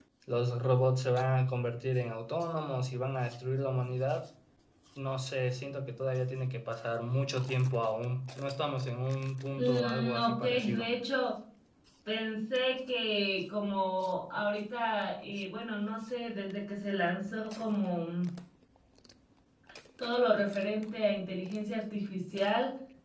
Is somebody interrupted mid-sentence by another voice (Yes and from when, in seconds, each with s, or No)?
Yes, from 9.5 s